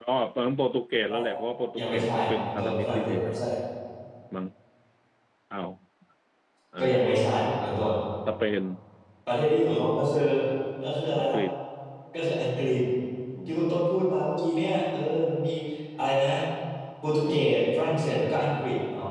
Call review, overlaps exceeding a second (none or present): present